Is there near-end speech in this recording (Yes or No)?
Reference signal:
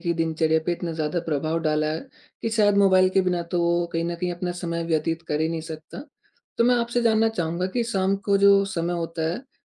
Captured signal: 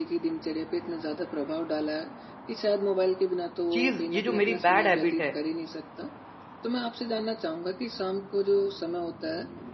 Yes